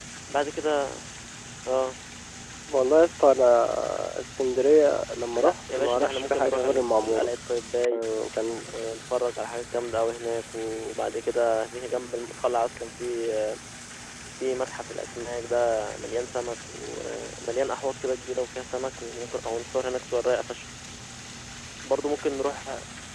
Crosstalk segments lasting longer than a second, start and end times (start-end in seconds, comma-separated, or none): 5.4-7.3